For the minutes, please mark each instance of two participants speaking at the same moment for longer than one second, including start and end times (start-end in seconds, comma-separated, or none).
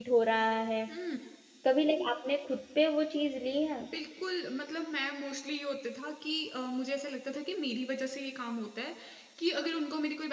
none